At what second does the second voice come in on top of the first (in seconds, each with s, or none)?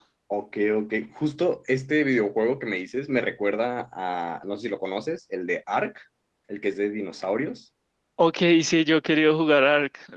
none